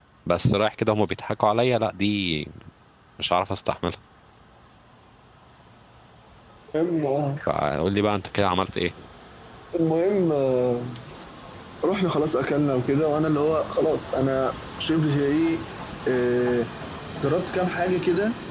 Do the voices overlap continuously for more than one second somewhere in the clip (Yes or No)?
No